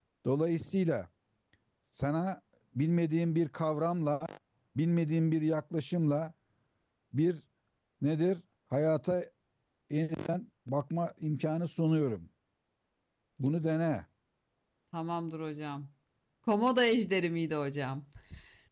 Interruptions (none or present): none